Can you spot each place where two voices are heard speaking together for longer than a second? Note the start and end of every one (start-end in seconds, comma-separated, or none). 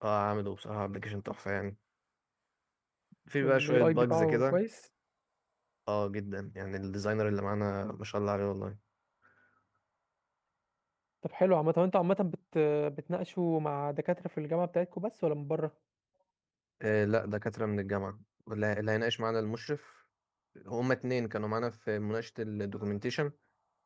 3.4-4.6